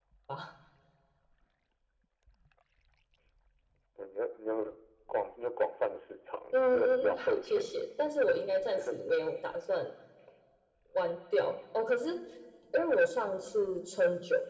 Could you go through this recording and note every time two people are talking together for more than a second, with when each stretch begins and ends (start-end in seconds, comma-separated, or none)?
6.5-7.8